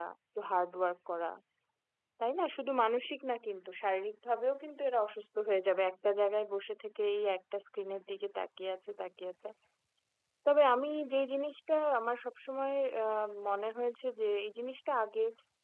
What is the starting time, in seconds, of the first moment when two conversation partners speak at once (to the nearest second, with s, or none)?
none